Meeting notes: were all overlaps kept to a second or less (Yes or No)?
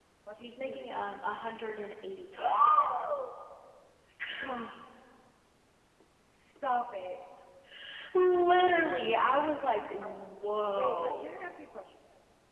No